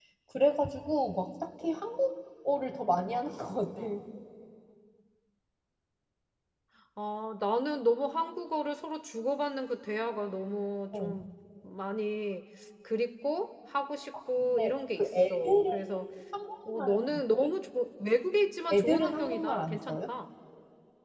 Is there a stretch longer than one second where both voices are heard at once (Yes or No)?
Yes